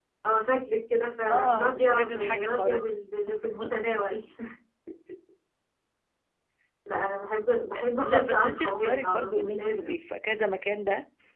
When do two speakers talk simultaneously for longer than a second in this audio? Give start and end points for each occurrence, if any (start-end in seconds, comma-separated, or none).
1.3-2.9, 8.0-9.9